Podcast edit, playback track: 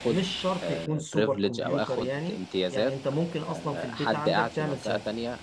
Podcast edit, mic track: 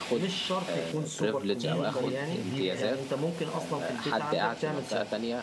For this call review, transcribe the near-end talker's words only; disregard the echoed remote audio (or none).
إيه الفي بي الفي بي إن؟